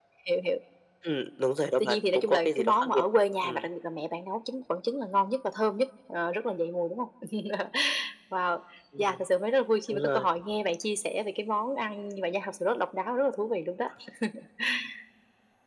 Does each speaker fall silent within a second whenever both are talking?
No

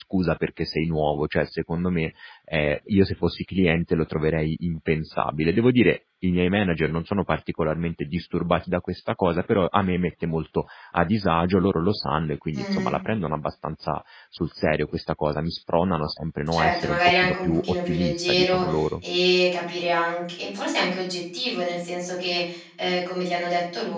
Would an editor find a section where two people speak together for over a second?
Yes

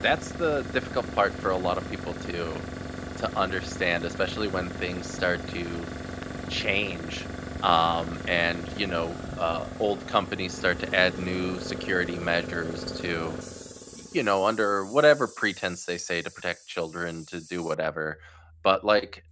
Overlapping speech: No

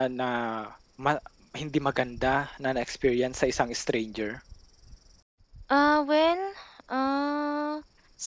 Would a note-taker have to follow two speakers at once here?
No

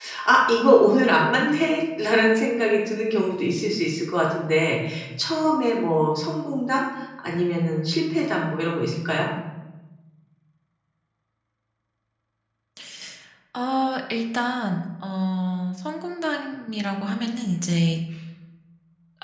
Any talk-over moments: No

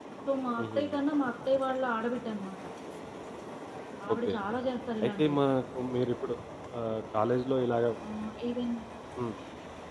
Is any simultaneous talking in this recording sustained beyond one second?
No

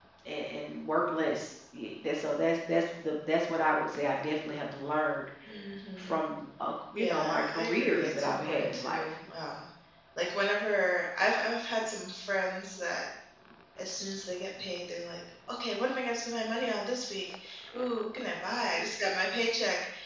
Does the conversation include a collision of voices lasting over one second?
Yes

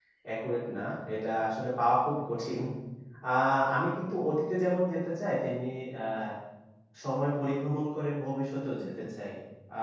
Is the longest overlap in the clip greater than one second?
No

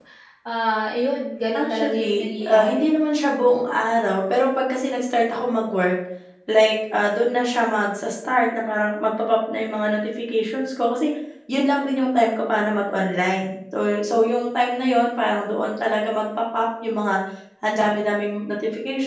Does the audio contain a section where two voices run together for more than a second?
Yes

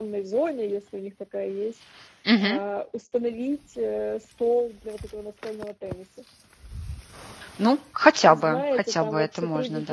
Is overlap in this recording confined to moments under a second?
No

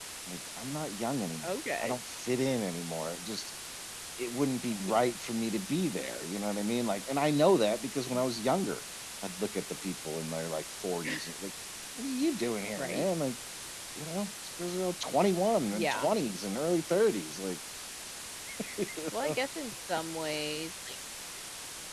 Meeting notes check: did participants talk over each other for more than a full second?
No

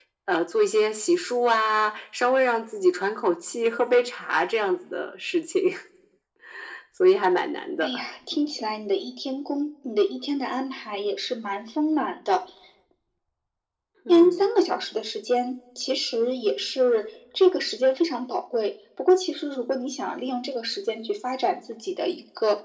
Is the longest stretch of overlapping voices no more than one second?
Yes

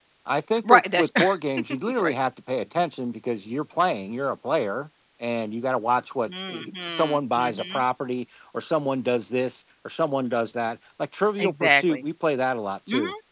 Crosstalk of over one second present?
Yes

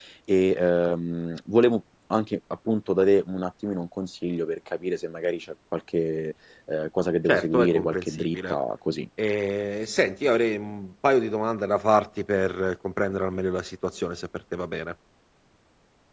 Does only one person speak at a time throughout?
No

